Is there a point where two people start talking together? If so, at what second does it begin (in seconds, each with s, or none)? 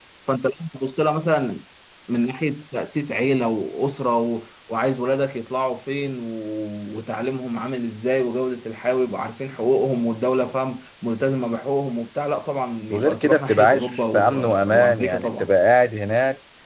12.9 s